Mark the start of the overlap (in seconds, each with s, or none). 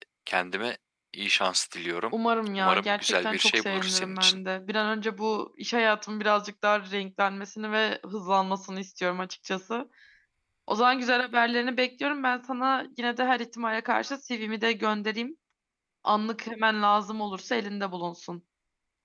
2.6 s